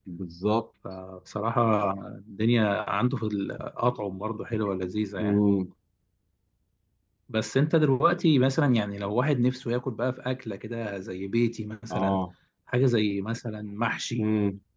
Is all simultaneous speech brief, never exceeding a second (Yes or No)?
Yes